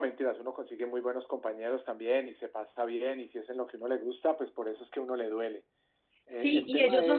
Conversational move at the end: taking over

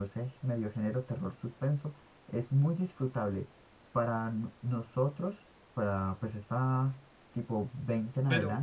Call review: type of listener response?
listening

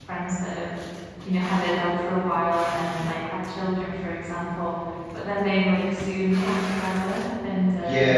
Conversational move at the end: taking over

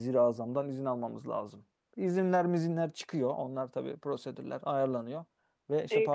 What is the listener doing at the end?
taking over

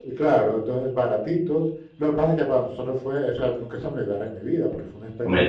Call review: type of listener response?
taking over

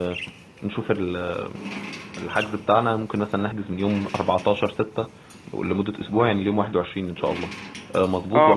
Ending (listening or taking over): taking over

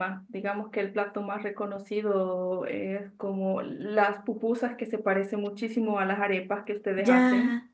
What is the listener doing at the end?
taking over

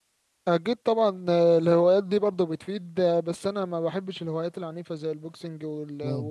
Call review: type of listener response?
listening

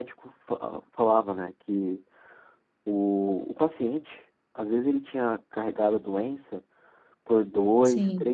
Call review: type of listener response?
listening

